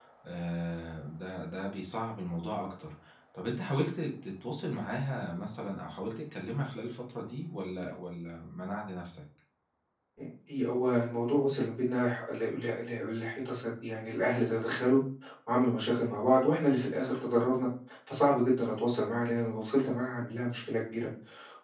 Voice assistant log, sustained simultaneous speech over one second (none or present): none